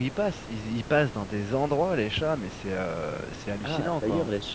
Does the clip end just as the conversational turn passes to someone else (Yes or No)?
Yes